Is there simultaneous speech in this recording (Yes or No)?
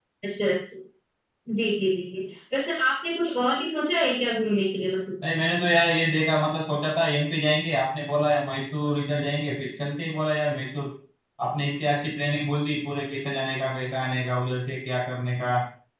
No